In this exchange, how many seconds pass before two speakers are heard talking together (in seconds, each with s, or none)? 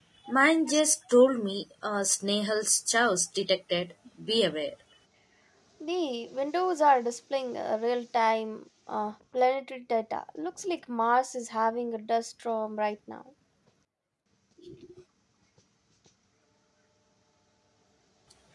none